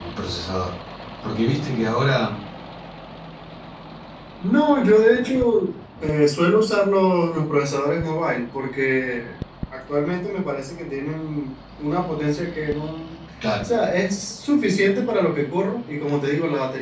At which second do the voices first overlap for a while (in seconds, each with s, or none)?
none